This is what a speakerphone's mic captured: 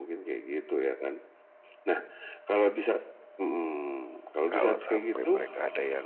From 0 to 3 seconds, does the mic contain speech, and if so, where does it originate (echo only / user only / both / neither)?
echo only